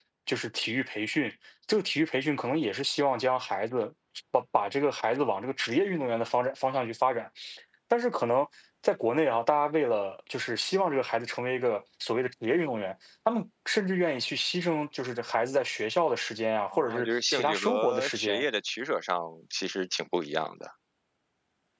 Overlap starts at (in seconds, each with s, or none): 16.7 s